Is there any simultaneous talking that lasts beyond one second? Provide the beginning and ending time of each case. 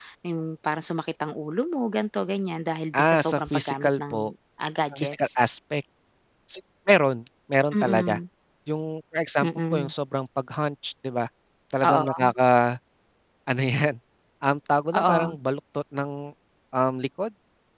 2.9-4.3

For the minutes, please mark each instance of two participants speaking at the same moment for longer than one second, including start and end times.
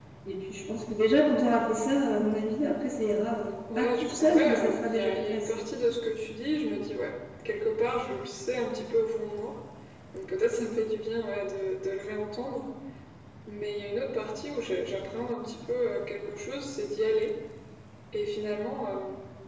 3.8-5.6

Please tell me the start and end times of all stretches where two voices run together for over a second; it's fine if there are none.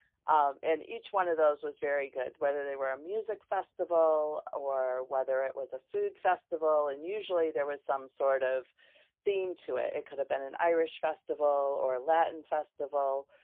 none

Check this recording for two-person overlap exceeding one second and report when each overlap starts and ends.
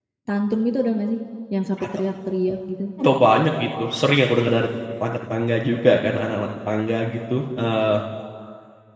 none

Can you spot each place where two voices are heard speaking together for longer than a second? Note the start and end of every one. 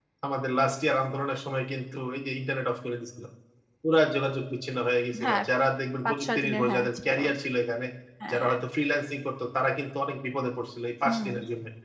6.0-7.3

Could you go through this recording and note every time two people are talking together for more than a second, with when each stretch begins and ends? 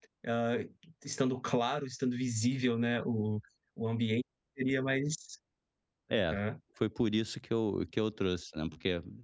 none

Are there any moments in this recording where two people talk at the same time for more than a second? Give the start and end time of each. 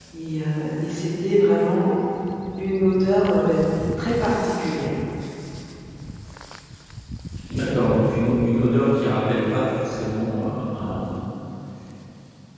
none

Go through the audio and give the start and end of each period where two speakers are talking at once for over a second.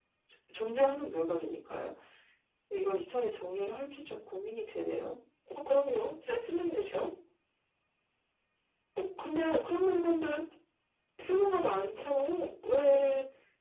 none

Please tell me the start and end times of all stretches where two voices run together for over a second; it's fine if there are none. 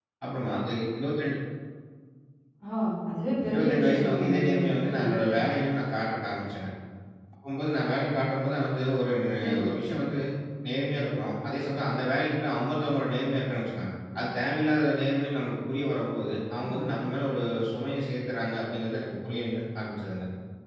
3.5-5.0

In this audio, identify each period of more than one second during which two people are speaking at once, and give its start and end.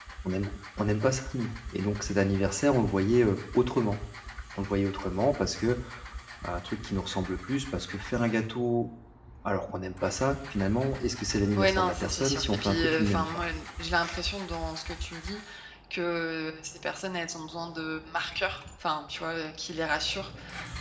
11.6-13.4

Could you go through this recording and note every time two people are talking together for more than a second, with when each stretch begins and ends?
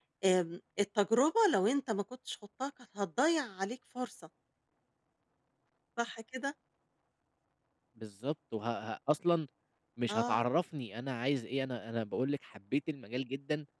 none

